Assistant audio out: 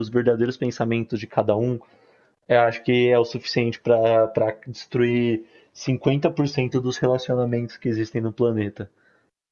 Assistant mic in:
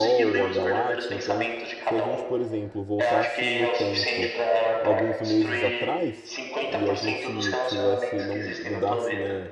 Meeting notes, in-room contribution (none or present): present